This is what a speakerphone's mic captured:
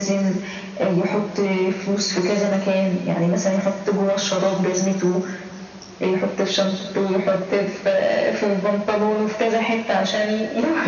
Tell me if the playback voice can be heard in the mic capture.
Yes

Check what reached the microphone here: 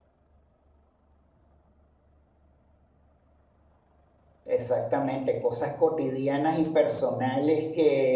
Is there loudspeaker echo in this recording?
No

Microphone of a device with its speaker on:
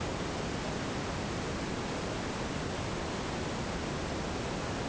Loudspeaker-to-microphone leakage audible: No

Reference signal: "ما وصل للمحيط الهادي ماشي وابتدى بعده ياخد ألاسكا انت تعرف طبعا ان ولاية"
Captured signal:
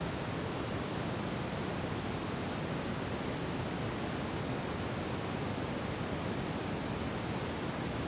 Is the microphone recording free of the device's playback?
Yes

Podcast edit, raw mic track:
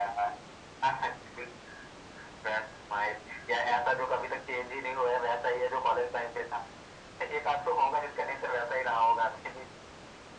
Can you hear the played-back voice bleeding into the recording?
Yes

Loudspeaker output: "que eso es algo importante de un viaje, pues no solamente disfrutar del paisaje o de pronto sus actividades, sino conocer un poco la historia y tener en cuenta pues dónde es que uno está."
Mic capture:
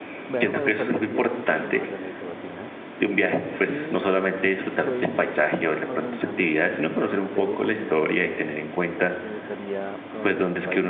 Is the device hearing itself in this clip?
Yes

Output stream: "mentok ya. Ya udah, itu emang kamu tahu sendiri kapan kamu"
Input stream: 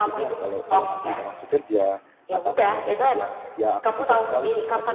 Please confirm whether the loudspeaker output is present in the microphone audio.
Yes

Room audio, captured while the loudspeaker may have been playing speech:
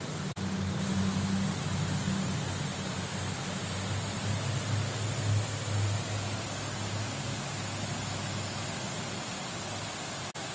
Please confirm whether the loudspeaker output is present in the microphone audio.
No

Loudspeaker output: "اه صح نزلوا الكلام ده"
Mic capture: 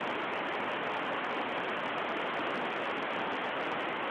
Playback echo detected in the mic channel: No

